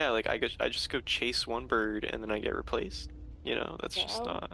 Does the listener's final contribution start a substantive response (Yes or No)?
No